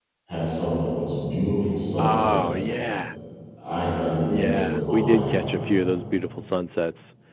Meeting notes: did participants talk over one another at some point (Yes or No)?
Yes